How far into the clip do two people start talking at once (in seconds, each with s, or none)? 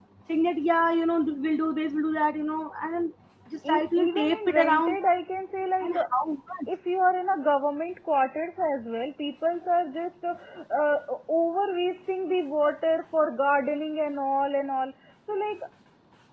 3.7 s